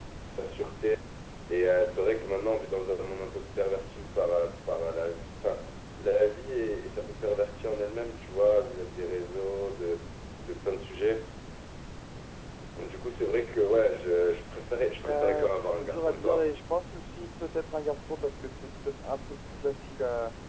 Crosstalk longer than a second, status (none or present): present